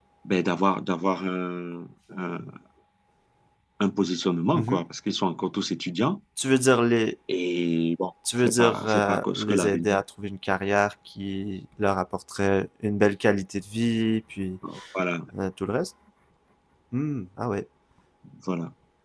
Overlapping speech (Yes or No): Yes